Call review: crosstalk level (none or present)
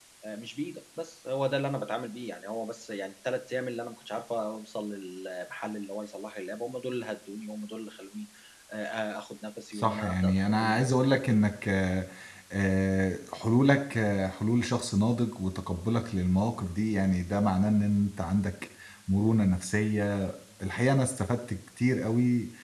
present